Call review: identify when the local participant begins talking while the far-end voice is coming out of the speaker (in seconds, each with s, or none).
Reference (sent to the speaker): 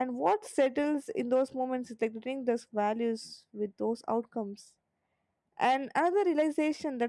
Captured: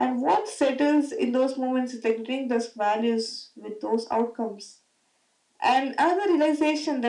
none